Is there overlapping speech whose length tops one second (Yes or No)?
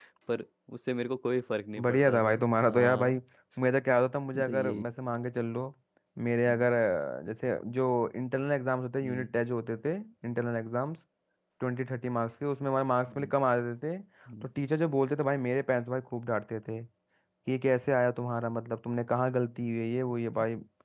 Yes